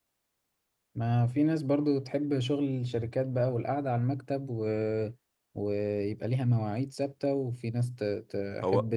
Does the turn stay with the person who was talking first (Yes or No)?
Yes